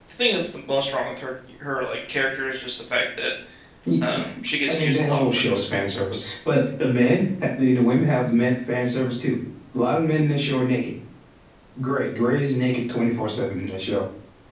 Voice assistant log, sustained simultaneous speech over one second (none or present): present